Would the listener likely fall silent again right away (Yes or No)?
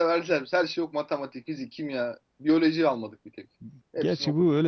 No